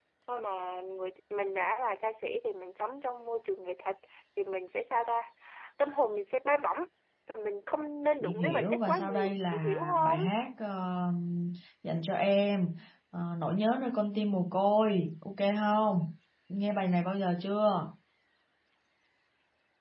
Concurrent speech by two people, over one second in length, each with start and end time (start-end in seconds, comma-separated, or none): 8.2-10.2